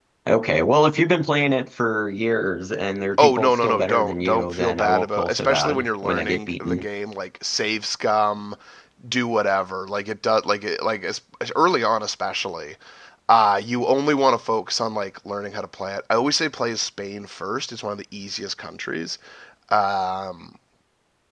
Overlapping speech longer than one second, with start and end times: 3.2-6.8

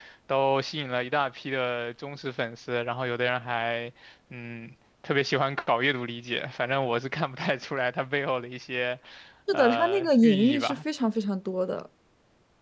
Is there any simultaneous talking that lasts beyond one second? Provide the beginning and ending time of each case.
9.5-10.8

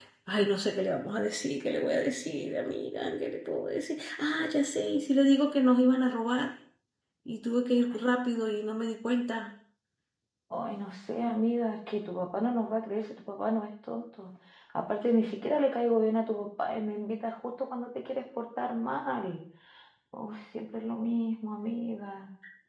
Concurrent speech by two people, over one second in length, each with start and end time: none

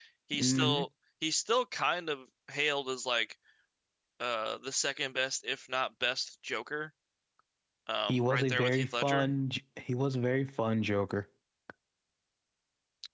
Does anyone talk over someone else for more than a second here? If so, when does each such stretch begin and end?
8.1-9.3

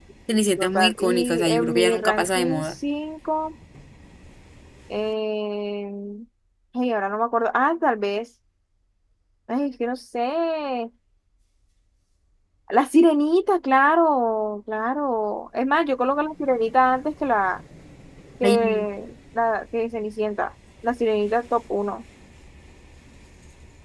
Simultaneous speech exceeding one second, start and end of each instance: 0.6-2.7

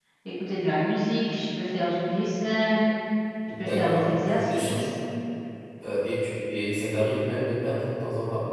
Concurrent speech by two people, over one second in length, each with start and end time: 3.6-4.8

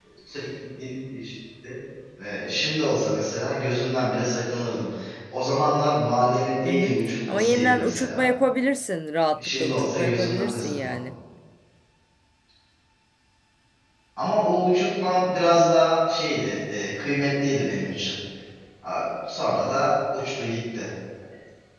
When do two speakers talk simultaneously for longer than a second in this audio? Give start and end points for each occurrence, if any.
6.6-8.2, 9.3-11.1

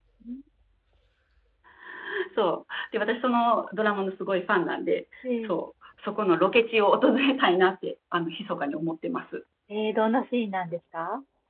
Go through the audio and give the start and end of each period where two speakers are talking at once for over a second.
none

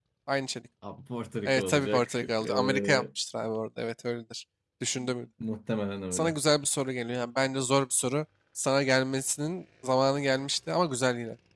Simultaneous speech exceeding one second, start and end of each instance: 1.4-3.0

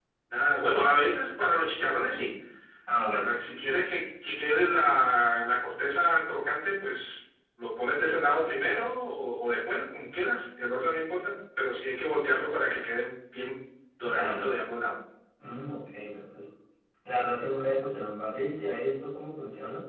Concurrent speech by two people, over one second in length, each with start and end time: none

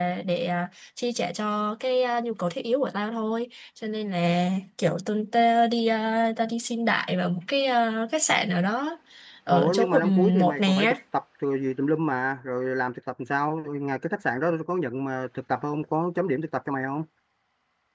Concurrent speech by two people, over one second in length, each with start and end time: 9.5-10.9

